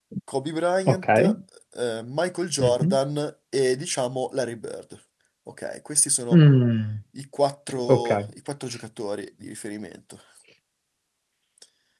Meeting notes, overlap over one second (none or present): none